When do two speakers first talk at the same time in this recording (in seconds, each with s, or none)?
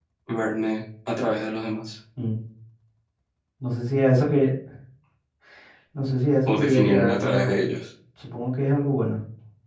6.5 s